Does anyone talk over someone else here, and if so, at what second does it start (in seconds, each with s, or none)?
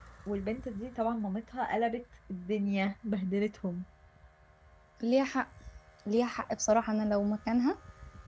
none